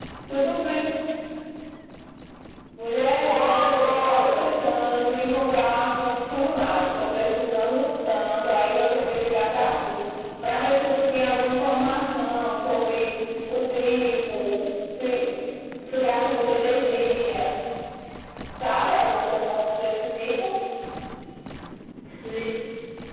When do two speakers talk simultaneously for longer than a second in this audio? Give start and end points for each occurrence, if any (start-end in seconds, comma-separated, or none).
3.3-4.5